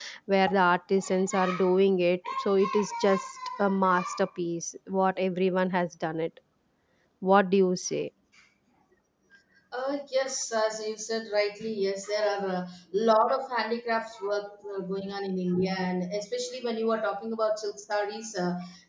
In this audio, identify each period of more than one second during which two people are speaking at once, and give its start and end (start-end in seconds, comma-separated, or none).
none